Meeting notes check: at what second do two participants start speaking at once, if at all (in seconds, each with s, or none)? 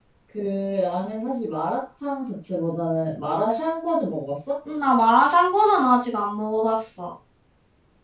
none